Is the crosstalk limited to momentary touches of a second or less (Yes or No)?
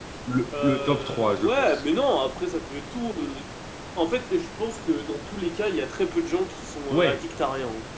No